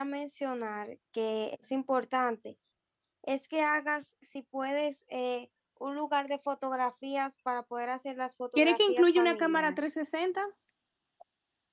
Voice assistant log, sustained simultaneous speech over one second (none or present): present